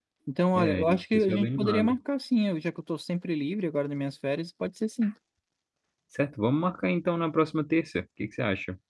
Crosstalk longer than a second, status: present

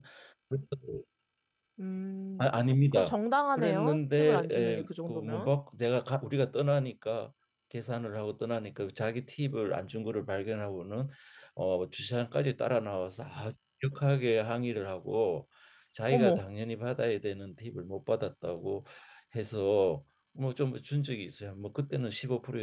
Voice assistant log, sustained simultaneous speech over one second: present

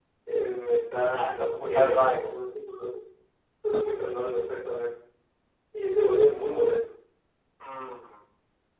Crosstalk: present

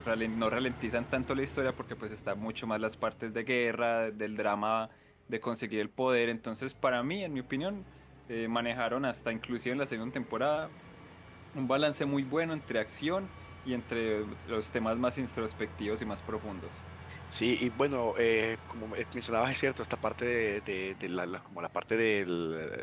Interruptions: none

